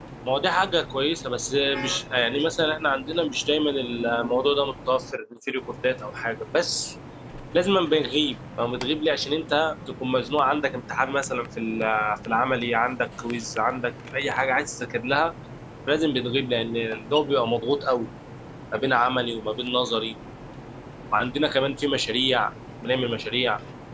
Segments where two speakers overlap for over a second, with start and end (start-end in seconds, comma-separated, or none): none